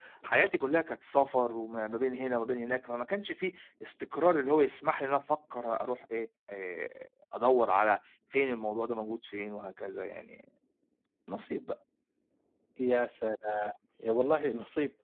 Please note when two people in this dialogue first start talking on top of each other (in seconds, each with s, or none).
none